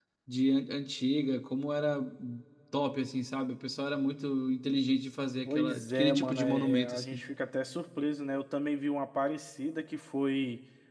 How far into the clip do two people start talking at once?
5.5 s

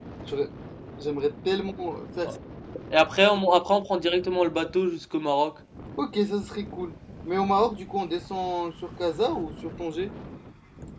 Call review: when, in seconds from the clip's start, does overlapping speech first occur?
none

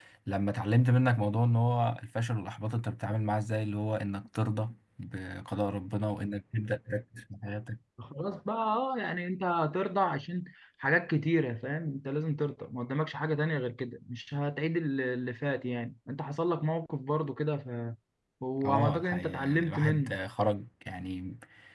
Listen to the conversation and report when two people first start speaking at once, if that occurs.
18.6 s

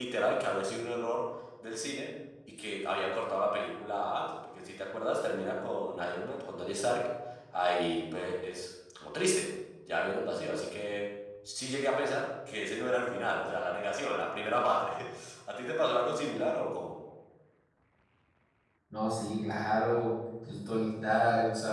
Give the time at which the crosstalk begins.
none

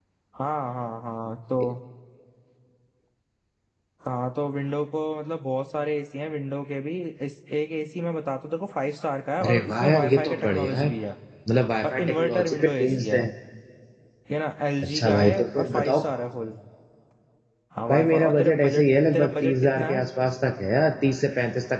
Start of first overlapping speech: 9.4 s

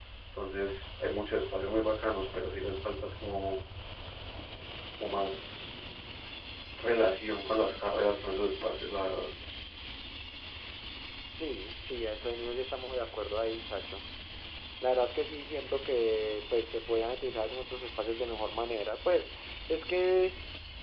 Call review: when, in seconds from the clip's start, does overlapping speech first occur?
none

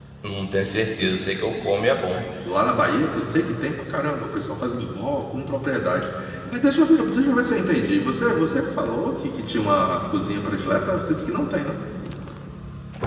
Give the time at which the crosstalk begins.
none

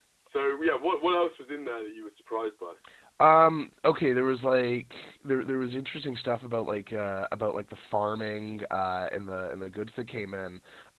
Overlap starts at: none

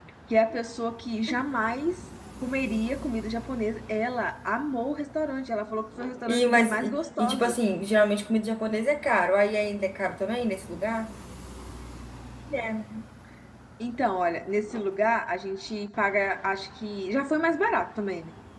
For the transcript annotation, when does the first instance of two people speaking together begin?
6.3 s

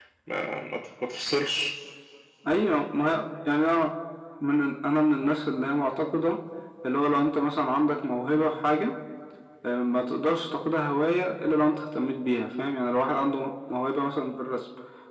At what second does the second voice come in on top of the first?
none

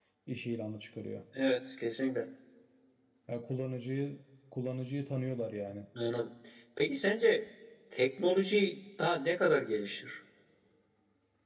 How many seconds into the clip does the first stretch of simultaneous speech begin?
none

